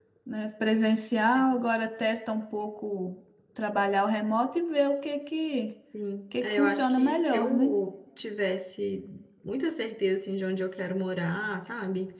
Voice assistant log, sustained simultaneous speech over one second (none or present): present